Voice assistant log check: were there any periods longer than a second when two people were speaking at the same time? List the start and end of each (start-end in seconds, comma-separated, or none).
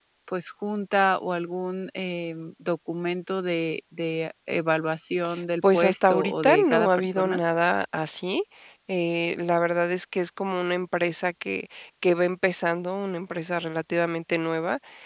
5.7-7.4